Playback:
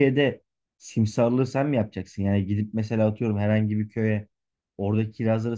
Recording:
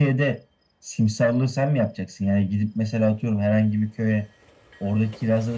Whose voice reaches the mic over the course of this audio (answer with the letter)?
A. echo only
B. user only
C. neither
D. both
A